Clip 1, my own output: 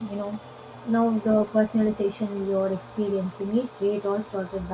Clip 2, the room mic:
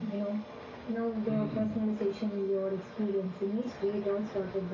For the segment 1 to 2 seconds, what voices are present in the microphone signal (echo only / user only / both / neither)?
both